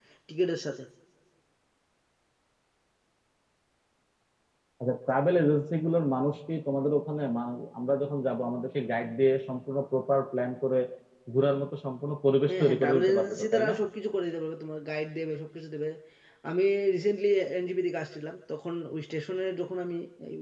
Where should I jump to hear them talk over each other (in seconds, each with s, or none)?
12.5 s